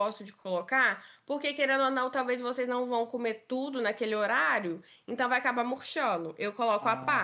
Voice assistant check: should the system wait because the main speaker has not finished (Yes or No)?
No